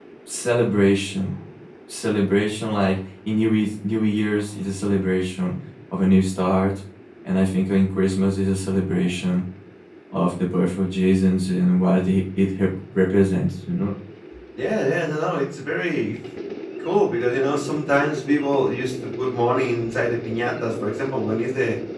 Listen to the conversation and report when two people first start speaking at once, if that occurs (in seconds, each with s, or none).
none